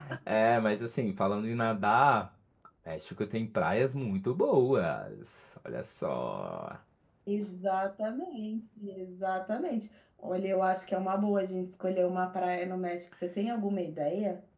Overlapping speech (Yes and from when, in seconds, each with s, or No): No